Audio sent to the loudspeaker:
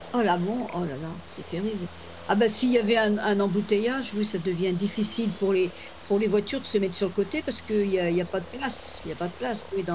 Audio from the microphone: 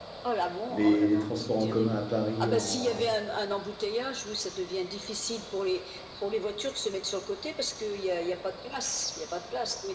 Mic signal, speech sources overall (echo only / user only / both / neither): both